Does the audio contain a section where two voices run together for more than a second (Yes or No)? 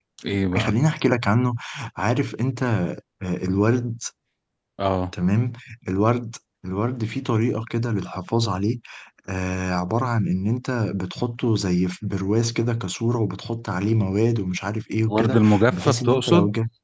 Yes